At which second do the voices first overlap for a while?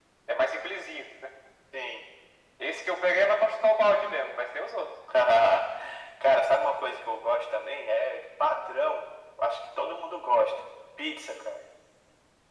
none

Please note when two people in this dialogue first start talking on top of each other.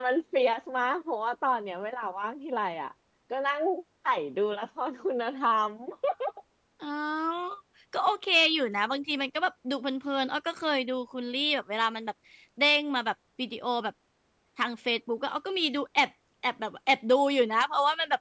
none

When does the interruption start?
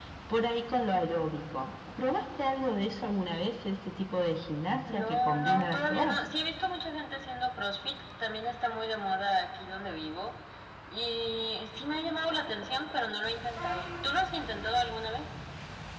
4.9 s

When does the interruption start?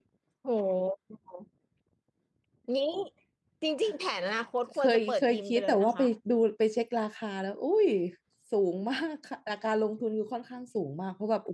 4.8 s

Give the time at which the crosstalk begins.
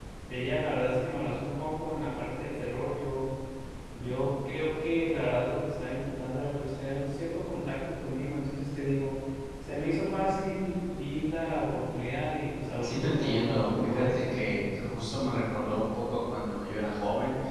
12.8 s

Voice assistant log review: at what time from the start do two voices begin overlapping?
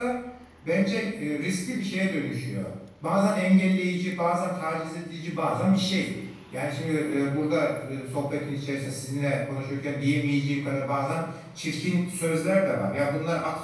none

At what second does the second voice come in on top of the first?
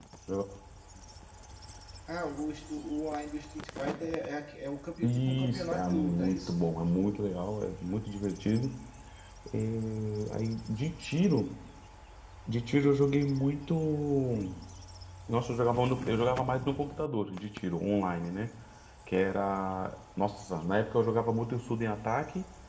5.0 s

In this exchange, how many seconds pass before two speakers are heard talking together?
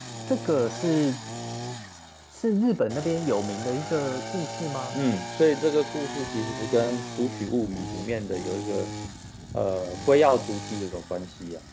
none

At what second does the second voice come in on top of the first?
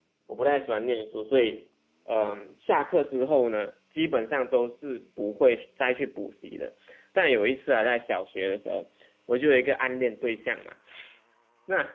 none

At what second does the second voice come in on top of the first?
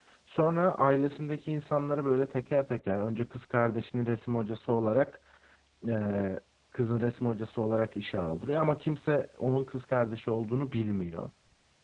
none

